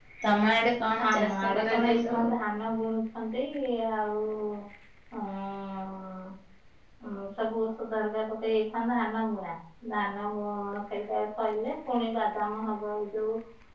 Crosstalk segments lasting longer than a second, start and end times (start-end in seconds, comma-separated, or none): 1.1-2.3